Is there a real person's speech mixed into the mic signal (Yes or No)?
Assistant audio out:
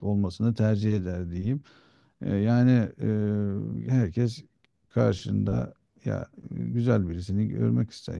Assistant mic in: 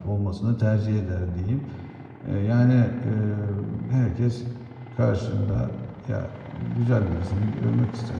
No